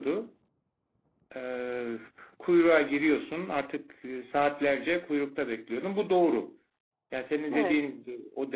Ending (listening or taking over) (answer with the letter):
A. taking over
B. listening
B